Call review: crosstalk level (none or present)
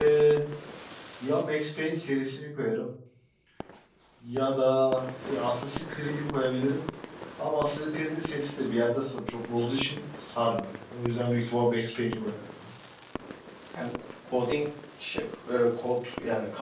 none